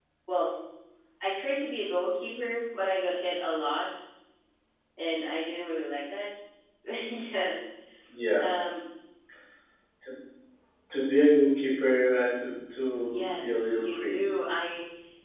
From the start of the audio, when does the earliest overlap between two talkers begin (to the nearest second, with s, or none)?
13 s